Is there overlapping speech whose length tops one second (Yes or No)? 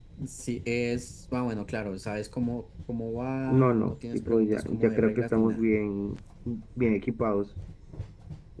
Yes